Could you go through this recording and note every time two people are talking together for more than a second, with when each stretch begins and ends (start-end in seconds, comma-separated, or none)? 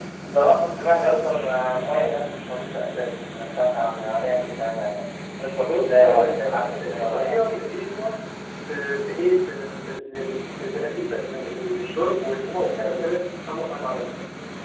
5.6-7.7